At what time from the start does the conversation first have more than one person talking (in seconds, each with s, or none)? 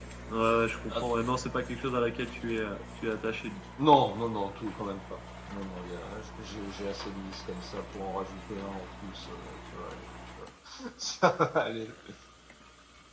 none